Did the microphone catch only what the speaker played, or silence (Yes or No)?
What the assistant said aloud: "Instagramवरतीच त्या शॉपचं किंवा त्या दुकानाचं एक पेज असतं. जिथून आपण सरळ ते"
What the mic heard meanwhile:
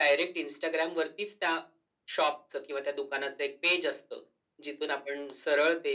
Yes